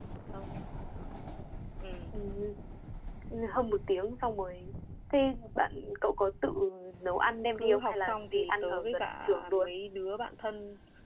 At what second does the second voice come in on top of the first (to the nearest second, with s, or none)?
8 s